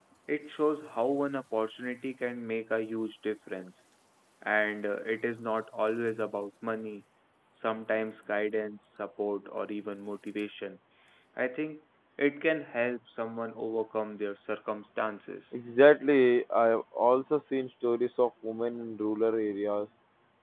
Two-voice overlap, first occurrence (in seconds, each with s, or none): none